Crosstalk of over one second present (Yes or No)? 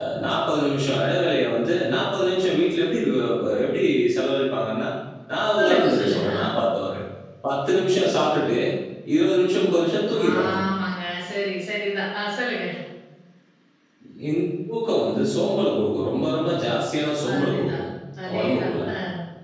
Yes